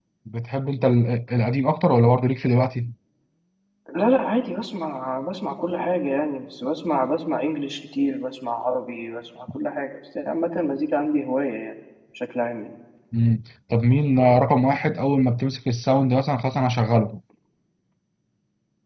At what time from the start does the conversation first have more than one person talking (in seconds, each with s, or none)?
none